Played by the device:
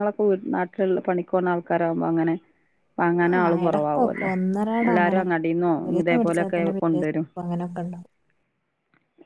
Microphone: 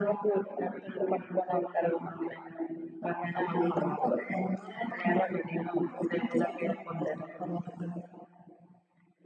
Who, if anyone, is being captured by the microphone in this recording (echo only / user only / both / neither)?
echo only